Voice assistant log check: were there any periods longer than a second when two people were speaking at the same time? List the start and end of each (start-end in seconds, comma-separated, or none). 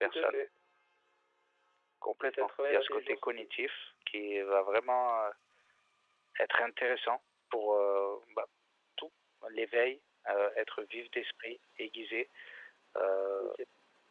2.2-3.5